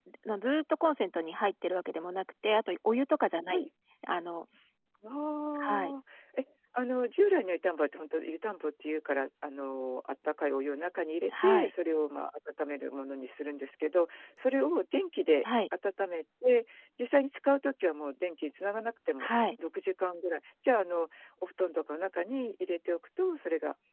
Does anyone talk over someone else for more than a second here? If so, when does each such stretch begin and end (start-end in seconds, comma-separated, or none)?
none